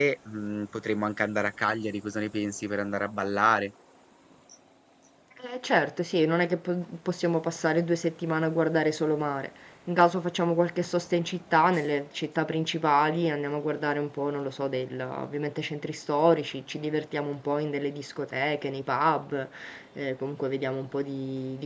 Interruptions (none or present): none